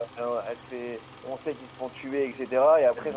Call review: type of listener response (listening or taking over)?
listening